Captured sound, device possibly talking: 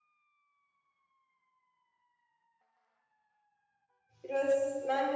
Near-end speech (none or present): present